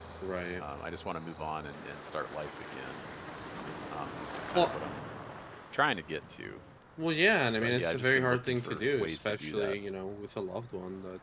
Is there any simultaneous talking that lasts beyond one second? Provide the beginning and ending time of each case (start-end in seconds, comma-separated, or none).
7.6-9.8